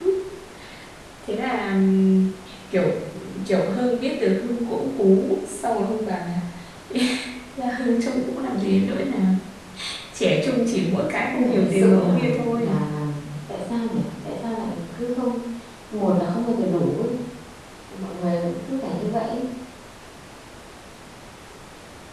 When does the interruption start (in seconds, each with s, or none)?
11.3 s